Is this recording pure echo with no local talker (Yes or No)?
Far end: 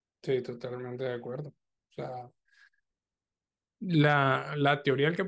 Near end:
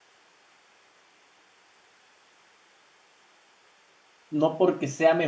No